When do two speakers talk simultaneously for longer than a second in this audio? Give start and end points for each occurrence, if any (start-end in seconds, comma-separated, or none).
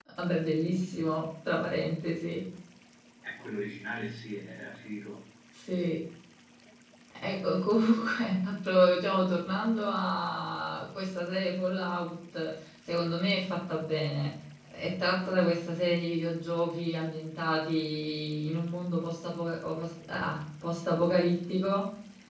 none